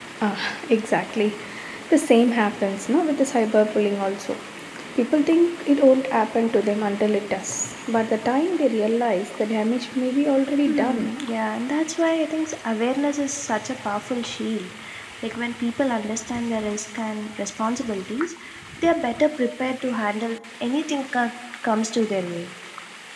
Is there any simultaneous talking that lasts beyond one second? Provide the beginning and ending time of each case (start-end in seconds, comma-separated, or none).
none